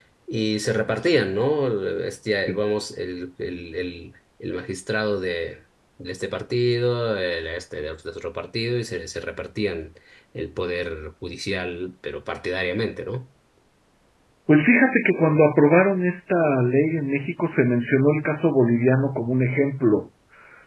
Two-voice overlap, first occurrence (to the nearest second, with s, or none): none